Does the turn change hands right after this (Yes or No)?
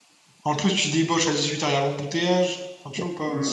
Yes